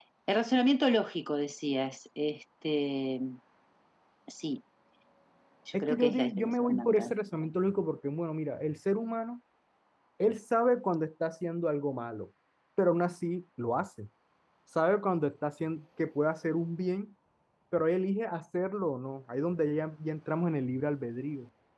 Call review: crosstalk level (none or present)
present